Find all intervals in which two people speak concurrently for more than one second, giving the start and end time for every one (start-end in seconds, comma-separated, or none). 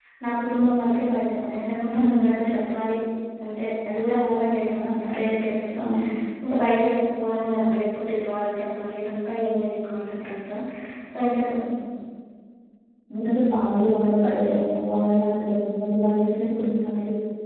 none